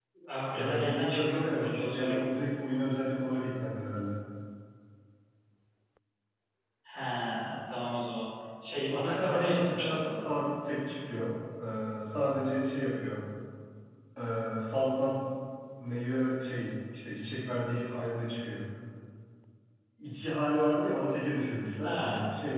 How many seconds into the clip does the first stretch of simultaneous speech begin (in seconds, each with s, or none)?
0.5 s